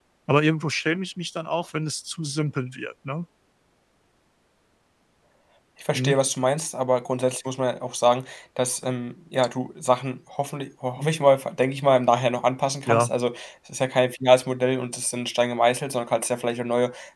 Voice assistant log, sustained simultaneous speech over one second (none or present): none